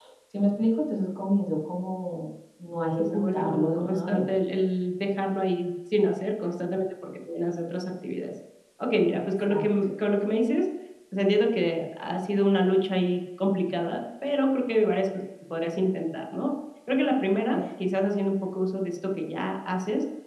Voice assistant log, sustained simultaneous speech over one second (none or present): present